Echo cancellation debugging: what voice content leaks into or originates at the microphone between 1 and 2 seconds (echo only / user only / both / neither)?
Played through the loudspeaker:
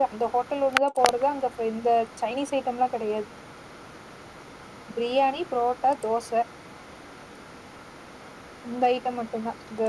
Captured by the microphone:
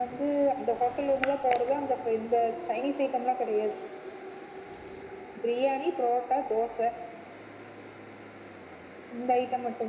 echo only